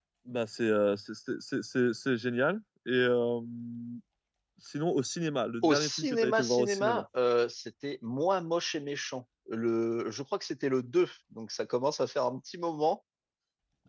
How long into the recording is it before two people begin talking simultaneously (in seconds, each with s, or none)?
5.6 s